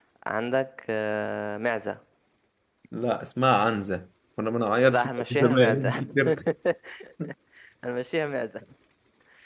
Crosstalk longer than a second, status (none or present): present